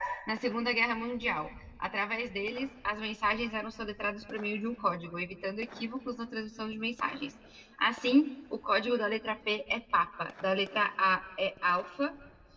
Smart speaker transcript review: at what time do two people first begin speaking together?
none

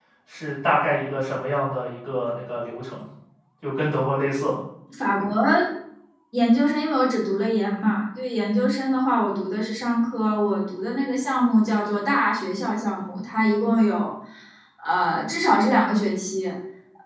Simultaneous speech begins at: none

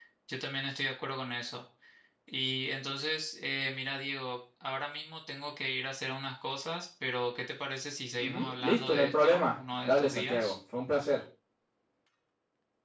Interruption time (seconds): 8 s

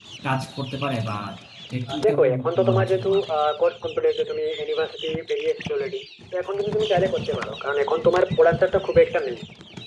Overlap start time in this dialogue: 2 s

